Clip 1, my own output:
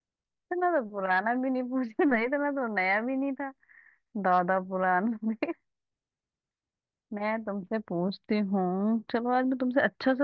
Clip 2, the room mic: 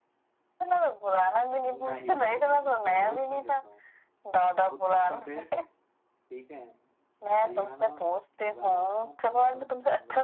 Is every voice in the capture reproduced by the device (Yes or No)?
No